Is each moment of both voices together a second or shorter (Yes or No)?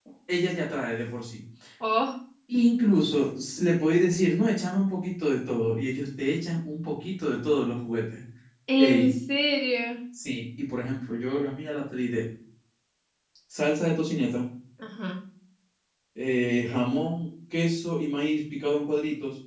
Yes